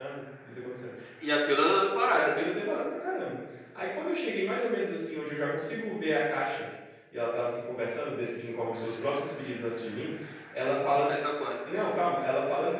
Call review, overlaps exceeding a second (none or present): none